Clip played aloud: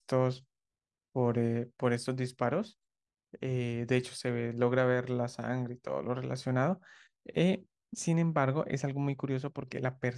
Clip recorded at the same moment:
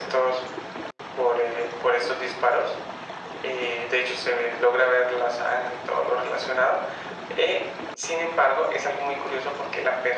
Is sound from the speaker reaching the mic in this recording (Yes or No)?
Yes